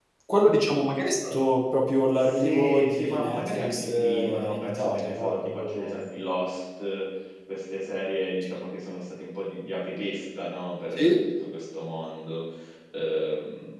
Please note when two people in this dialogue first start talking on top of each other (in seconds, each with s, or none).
2.2 s